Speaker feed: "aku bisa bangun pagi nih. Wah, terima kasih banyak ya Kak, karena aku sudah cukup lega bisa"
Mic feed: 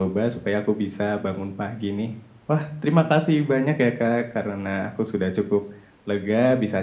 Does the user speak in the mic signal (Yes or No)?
No